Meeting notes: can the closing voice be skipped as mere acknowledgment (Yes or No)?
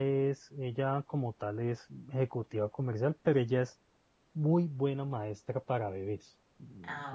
Yes